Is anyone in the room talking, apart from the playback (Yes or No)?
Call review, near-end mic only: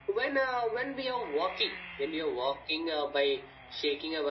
No